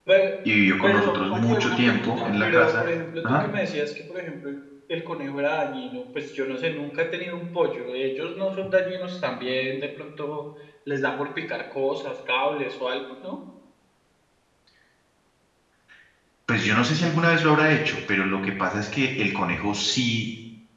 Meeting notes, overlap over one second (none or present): present